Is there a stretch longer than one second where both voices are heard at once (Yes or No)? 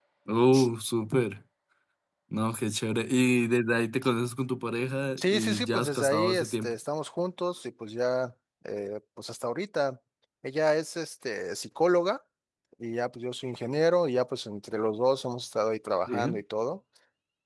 Yes